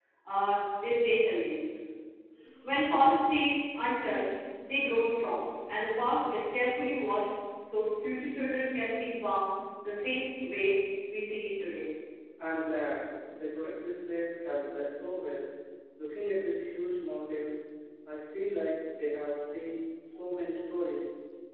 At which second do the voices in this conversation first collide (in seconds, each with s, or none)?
none